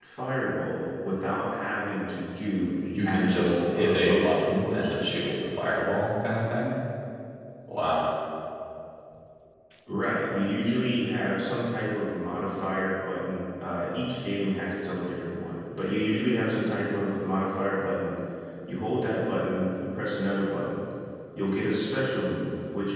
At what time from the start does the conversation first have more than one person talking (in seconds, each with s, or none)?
2.9 s